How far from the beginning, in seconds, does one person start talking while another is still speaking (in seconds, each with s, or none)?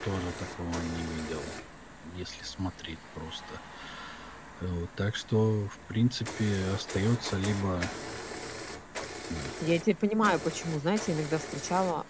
none